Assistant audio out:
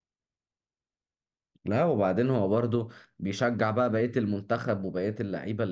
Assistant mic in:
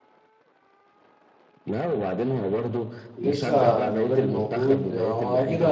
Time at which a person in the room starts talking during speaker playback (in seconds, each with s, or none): 3.2 s